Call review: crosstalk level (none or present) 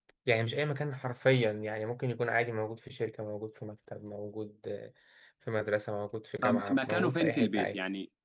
present